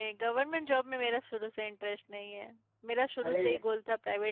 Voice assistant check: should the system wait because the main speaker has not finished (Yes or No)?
Yes